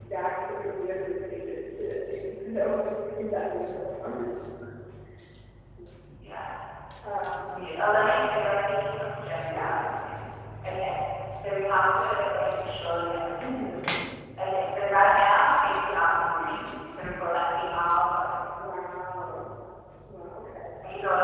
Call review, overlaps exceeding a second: none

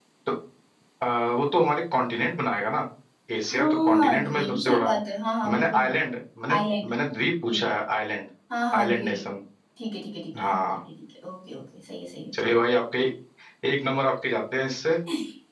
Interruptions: present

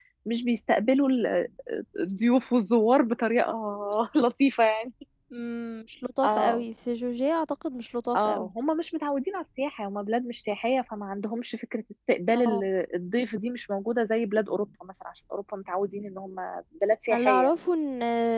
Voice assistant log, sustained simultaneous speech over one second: none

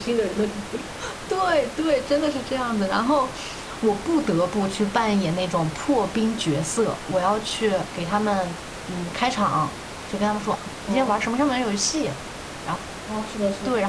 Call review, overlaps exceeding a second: none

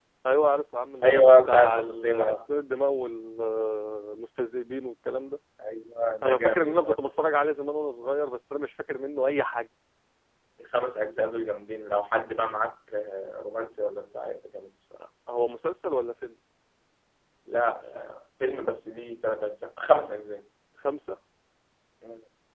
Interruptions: present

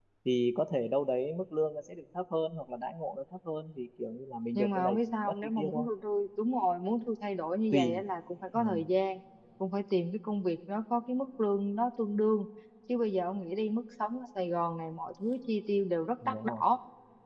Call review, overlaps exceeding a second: present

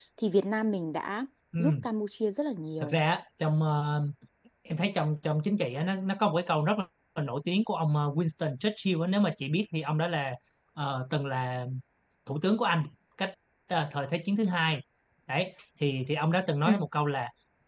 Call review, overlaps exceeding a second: none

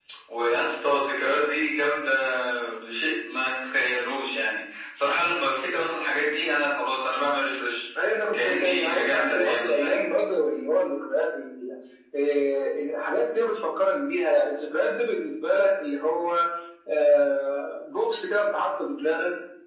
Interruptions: present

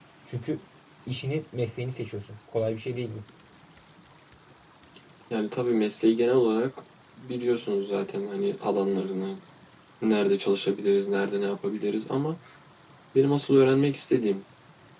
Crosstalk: none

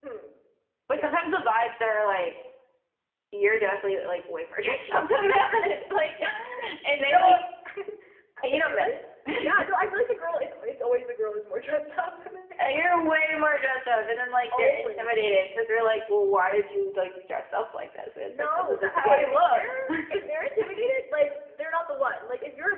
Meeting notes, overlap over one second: present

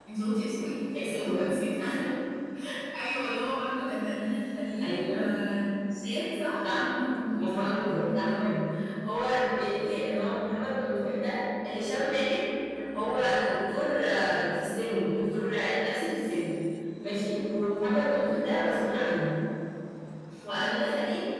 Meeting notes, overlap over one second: none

